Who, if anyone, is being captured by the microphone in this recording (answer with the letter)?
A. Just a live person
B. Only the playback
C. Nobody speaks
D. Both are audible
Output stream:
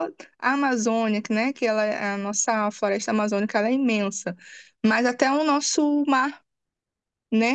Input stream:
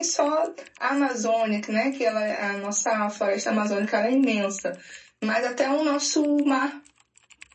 B